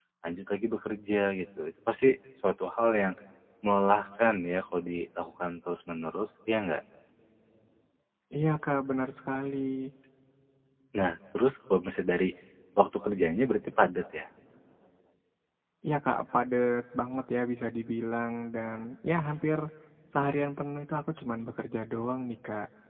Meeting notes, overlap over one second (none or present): none